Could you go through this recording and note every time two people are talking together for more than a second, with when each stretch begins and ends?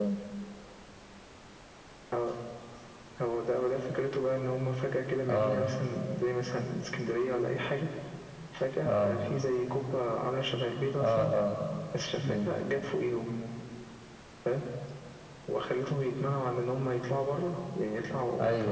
none

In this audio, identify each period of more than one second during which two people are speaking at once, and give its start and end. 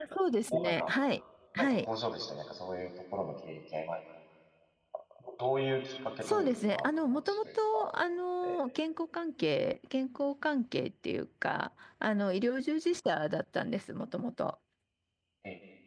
6.2-7.9

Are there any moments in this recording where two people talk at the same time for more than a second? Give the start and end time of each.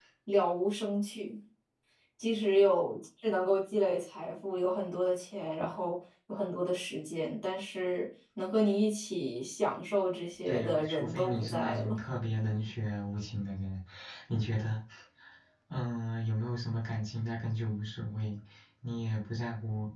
10.4-11.9

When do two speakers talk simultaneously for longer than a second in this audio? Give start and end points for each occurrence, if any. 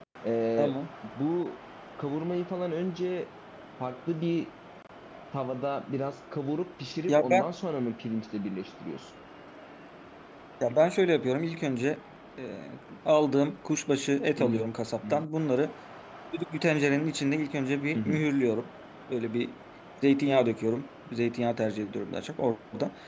none

